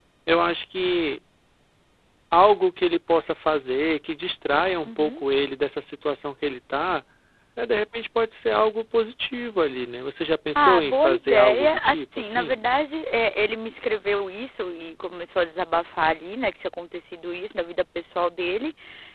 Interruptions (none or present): present